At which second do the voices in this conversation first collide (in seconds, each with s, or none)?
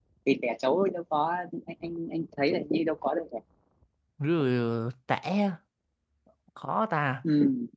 none